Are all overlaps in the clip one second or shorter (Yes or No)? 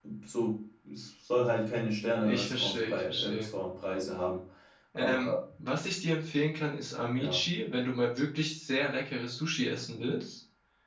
No